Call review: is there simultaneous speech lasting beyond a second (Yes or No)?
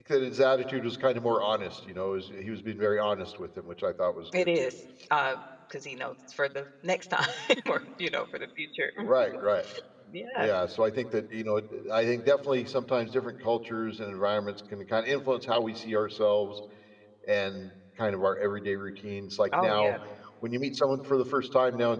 No